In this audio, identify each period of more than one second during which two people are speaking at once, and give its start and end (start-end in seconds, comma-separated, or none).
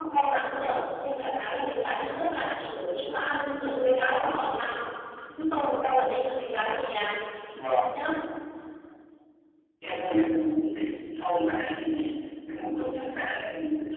none